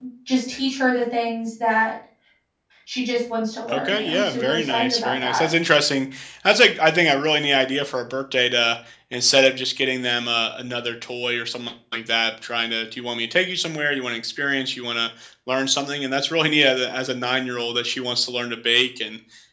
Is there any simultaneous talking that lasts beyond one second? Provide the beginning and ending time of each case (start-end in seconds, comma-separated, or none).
3.7-5.5